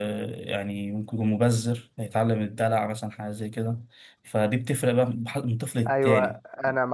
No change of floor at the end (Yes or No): No